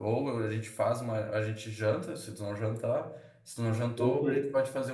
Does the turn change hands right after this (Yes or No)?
No